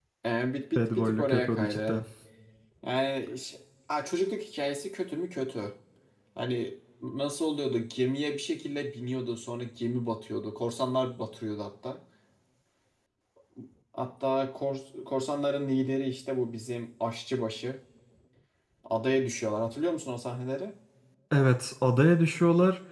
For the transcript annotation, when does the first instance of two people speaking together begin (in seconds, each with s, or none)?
0.8 s